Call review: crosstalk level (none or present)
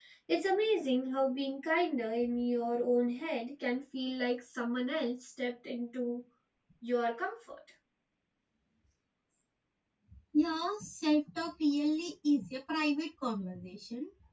none